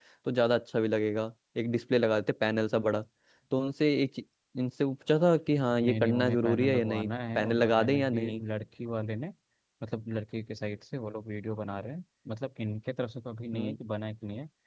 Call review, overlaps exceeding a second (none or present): present